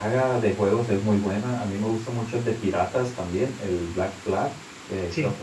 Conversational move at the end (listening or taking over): listening